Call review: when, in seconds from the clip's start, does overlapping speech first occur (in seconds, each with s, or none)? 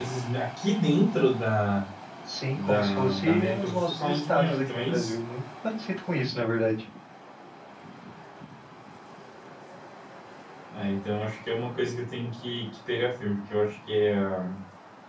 2.5 s